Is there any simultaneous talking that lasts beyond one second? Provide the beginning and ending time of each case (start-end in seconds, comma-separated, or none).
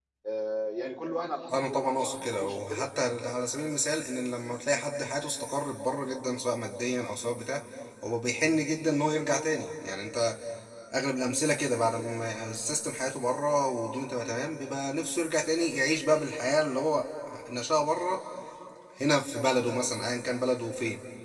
1.5-2.9